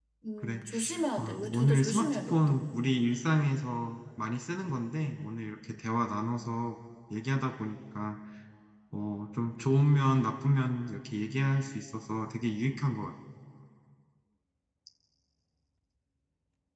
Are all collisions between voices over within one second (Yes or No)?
No